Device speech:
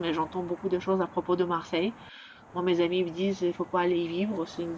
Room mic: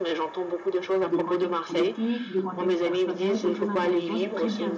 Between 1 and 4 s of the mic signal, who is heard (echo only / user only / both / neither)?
both